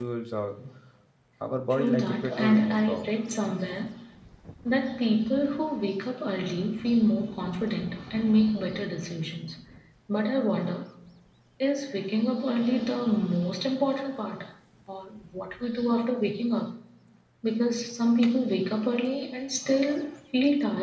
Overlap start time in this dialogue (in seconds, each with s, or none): 1.7 s